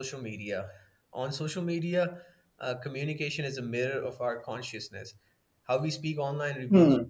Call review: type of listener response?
listening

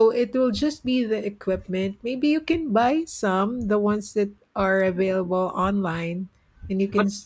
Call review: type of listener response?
taking over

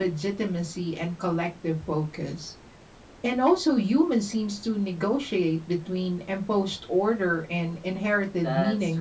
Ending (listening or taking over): taking over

